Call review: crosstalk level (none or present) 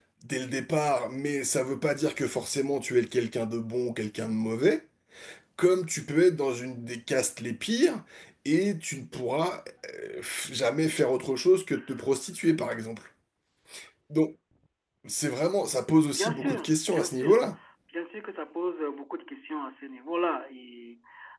present